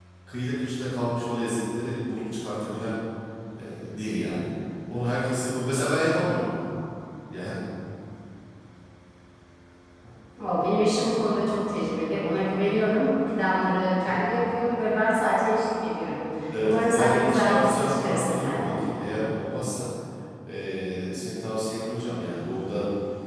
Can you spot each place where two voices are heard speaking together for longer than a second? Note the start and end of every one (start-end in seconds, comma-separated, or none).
16.6-18.8